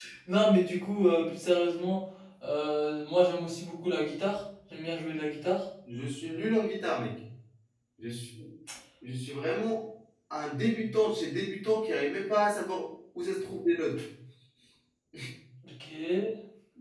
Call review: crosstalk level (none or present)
none